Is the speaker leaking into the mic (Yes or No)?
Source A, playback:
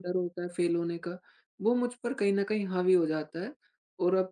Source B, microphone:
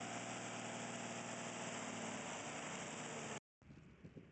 No